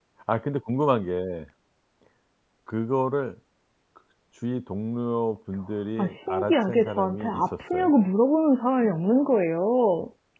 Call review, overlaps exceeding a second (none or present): present